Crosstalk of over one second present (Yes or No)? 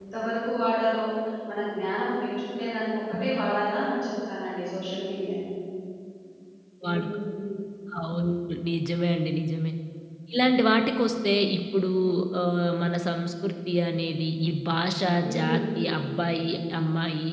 No